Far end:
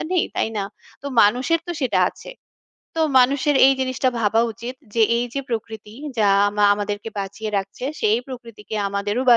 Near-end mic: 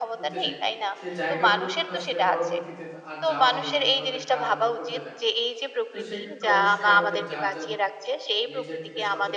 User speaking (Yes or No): Yes